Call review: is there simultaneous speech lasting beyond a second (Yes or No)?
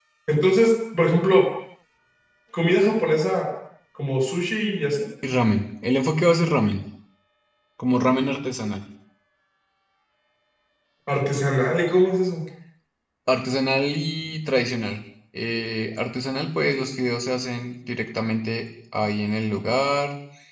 No